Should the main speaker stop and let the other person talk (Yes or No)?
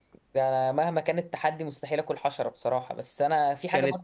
No